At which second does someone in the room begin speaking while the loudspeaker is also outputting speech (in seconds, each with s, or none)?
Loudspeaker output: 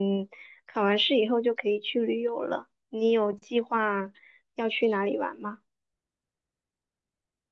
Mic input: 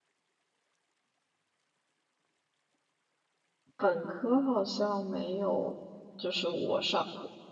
3.8 s